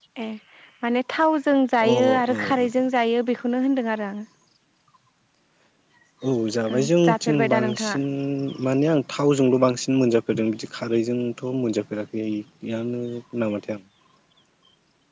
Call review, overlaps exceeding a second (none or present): present